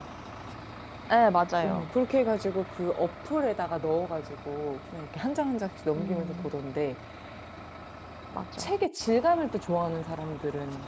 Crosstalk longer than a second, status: none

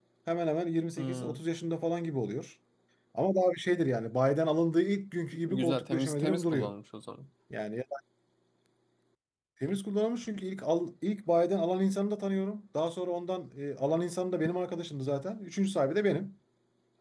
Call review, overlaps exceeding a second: present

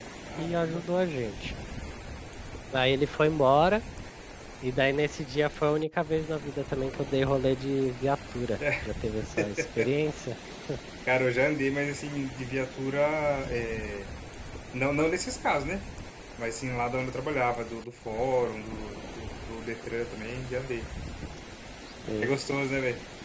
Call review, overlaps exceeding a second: none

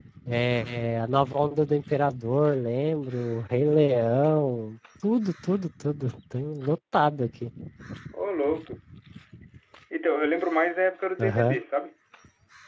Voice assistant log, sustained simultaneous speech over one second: none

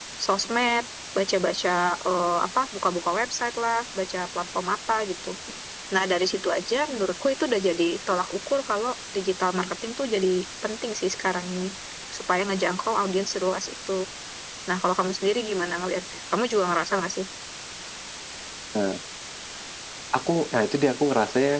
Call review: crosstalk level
none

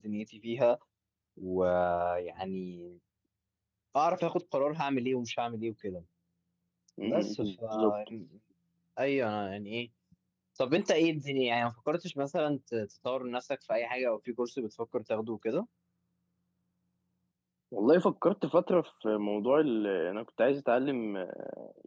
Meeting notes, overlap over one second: none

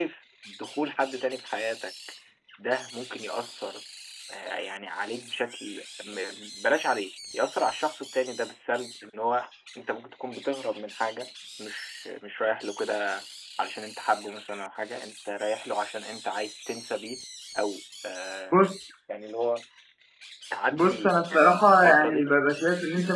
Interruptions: present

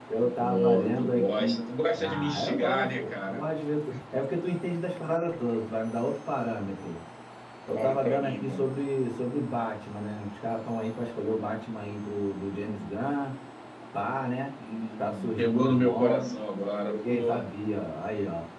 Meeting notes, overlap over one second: present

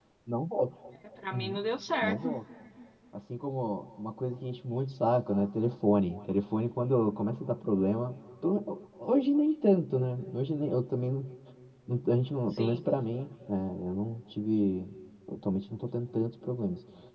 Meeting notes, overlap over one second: none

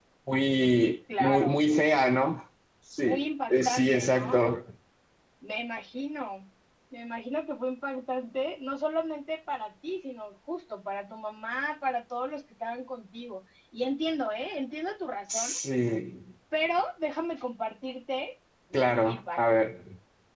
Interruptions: present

